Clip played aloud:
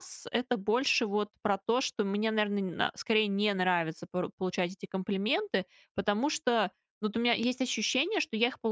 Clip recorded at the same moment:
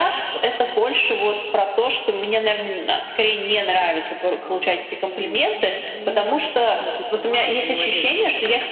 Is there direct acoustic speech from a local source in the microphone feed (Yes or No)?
Yes